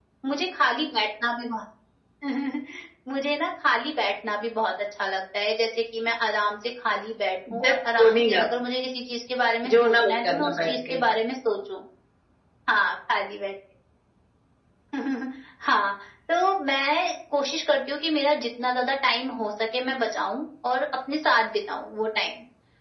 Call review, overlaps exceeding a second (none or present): present